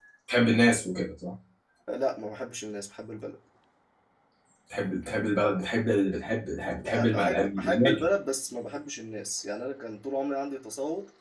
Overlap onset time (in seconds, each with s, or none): 6.9 s